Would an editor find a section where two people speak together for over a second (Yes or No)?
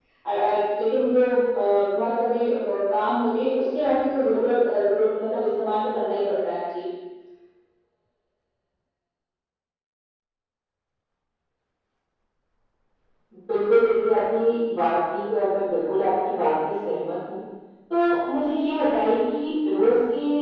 No